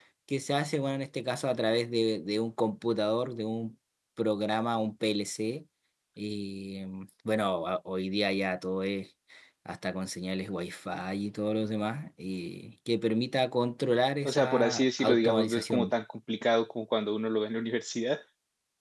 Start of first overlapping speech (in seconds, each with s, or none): 14.2 s